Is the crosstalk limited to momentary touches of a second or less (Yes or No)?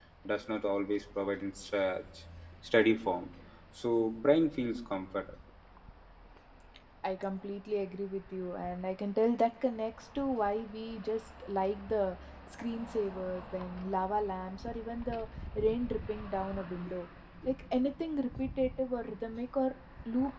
Yes